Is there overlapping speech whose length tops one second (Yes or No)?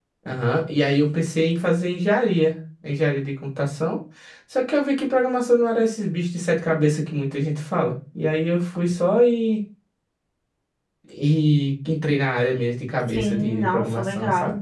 Yes